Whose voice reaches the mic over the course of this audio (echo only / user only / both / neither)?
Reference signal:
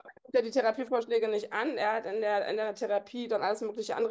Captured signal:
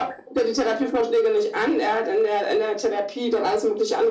echo only